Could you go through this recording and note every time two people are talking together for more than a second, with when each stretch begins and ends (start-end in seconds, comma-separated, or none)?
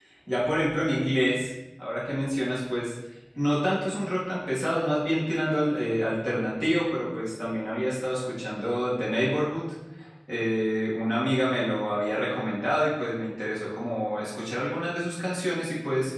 none